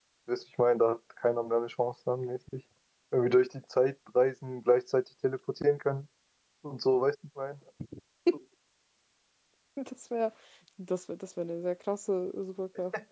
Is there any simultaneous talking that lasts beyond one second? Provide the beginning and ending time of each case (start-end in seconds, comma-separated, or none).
none